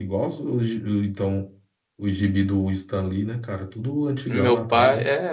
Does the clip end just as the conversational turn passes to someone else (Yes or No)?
Yes